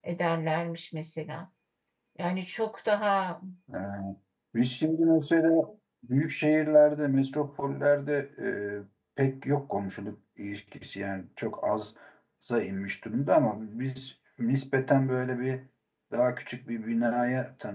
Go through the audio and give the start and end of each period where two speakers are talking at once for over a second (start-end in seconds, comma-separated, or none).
none